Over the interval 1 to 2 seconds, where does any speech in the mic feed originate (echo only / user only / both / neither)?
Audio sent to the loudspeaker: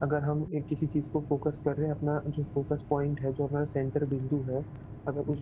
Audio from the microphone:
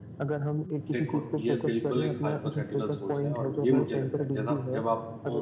both